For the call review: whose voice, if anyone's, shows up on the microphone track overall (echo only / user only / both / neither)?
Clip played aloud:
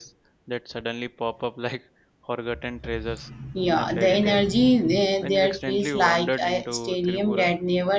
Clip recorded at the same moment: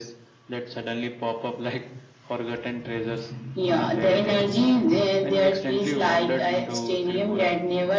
echo only